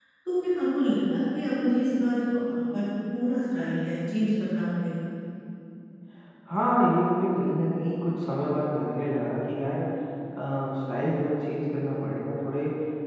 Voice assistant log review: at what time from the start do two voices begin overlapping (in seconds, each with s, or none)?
none